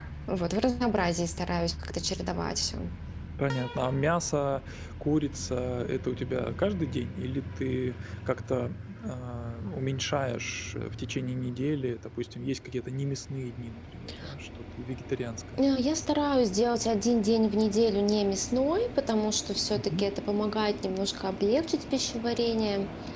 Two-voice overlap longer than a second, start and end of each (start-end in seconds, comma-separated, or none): none